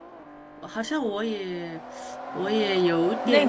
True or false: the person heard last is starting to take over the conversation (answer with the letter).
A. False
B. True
B